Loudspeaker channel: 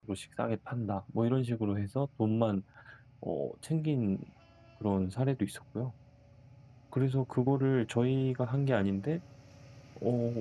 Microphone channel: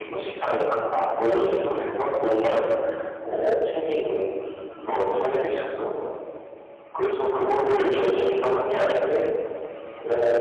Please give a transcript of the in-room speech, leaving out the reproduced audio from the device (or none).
none